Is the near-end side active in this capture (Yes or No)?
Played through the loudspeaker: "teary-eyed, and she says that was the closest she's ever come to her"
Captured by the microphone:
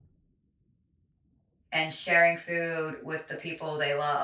Yes